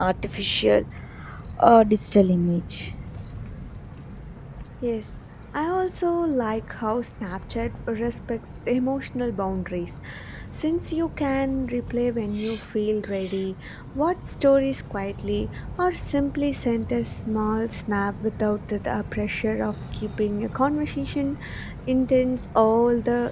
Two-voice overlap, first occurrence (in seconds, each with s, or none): none